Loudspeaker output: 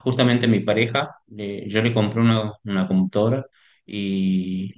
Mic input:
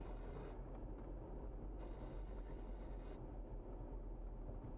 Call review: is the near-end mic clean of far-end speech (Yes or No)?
Yes